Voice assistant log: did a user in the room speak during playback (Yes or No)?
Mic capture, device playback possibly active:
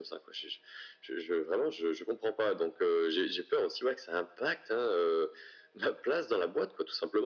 No